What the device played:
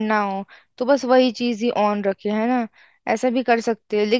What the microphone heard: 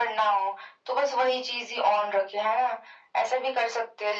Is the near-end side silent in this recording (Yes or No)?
Yes